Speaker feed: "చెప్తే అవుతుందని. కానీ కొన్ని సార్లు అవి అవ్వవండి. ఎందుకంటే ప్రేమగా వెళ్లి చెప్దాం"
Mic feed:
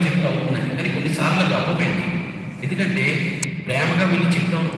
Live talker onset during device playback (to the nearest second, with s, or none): none